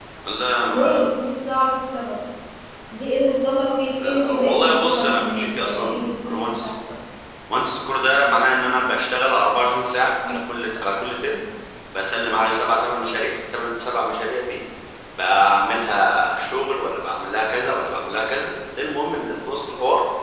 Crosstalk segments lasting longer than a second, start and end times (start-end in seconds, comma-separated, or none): 4.0-6.7